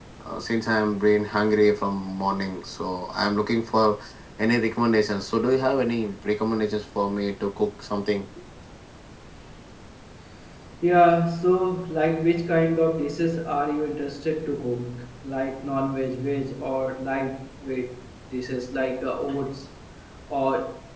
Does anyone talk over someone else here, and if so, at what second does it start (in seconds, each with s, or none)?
none